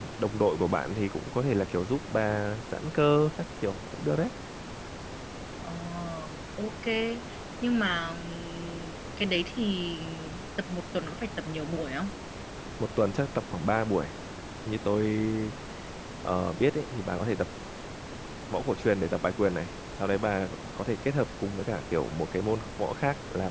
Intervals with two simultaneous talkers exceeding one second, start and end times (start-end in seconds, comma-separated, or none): none